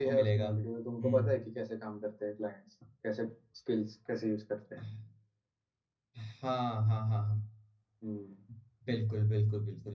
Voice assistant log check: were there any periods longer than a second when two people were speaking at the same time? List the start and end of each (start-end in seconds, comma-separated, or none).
none